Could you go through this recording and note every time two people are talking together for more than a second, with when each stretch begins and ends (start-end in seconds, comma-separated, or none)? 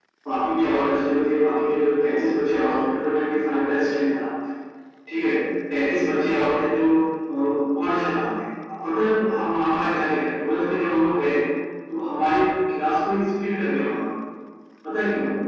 none